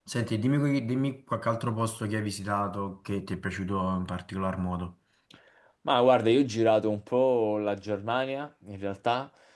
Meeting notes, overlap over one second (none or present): none